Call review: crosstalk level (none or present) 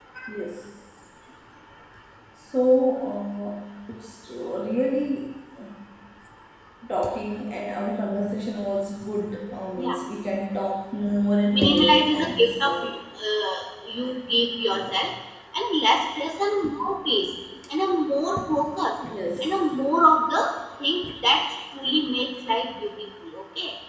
present